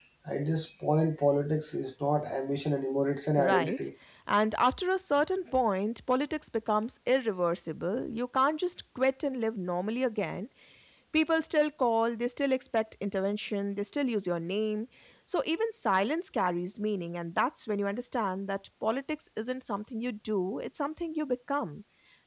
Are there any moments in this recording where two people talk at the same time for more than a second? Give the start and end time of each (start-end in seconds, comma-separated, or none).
none